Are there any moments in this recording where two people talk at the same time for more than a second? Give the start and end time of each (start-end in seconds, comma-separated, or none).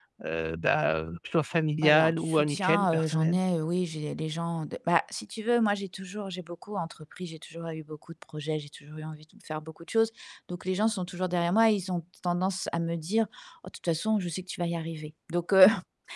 1.8-3.4